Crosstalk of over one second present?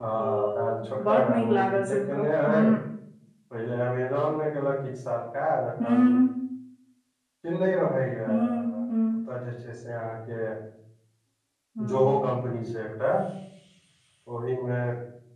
Yes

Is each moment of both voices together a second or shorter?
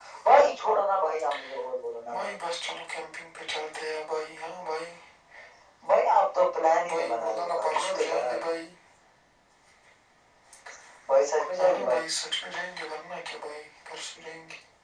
No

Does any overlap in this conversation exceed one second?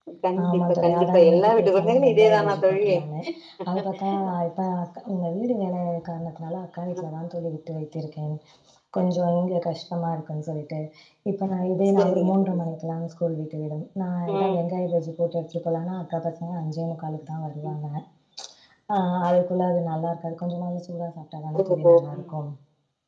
Yes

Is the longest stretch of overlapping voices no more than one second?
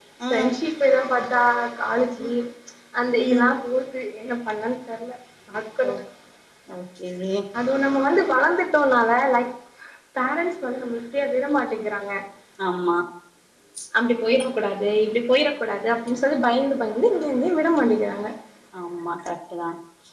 Yes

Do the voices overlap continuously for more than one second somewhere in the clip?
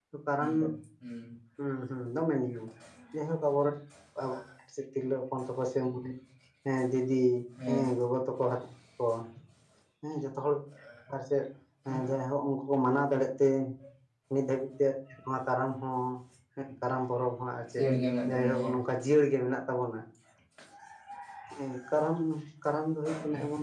No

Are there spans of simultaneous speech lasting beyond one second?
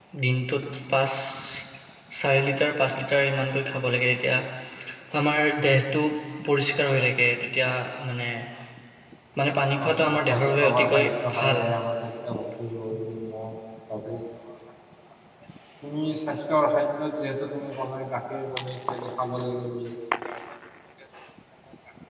Yes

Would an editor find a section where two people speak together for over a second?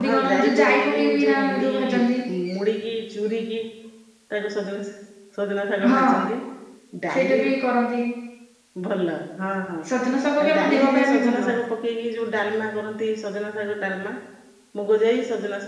Yes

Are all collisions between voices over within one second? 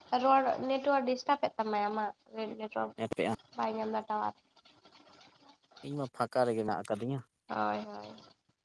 Yes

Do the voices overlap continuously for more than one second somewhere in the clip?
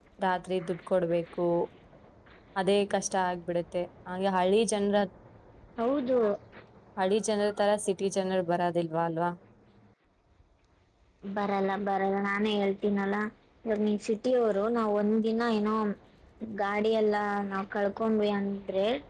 No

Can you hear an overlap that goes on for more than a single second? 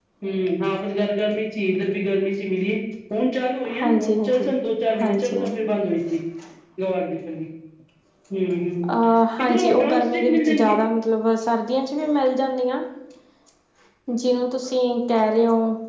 Yes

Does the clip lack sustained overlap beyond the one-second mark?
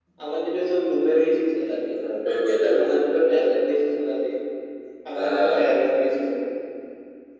Yes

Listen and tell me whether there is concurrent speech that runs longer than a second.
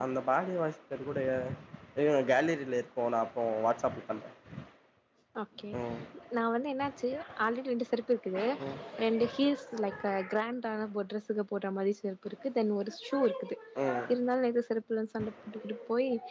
No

